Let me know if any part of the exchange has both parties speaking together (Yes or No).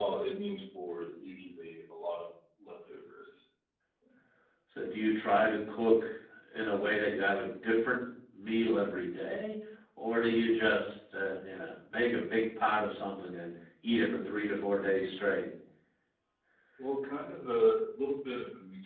No